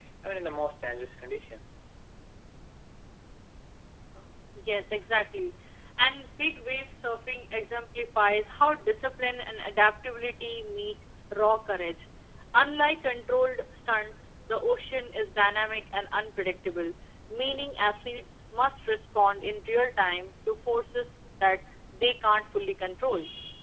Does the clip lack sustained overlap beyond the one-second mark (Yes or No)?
Yes